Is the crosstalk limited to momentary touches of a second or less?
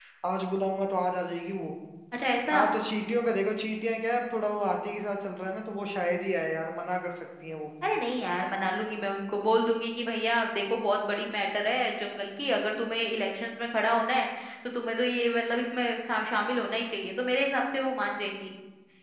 Yes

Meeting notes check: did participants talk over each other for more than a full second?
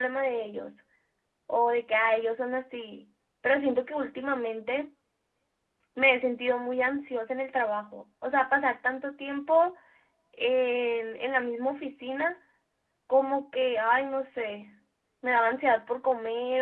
No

